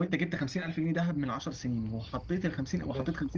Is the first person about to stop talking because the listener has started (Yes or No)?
No